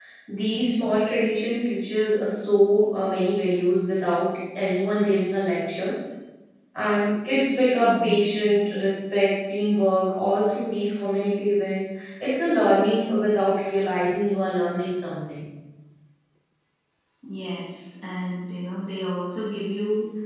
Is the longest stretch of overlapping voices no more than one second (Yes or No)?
Yes